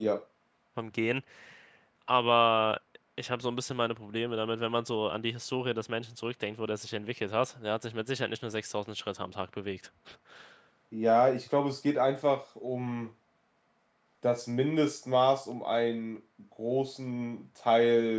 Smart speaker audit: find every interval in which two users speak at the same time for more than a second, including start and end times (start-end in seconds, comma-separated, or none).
none